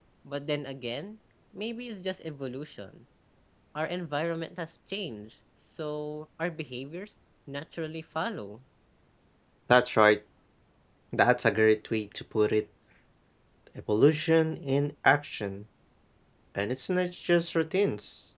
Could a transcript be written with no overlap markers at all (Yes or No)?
Yes